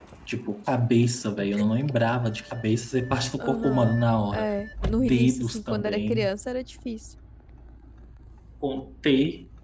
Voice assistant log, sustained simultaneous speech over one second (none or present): present